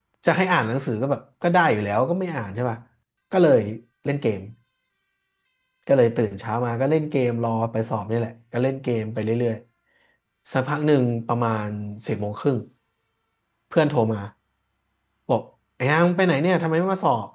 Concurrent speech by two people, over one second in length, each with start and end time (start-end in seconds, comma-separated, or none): none